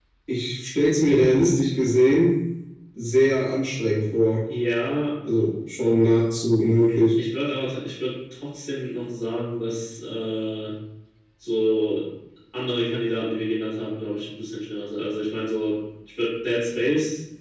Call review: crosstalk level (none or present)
none